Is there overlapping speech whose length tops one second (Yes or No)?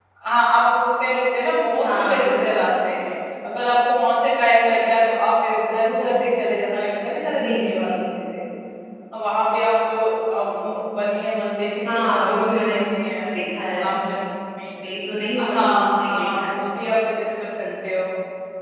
Yes